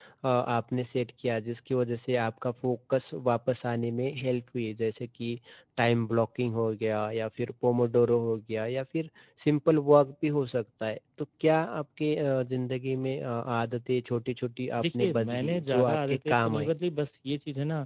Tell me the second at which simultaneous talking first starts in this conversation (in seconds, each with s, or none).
14.8 s